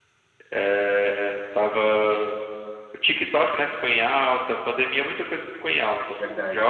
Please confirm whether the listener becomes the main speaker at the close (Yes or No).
No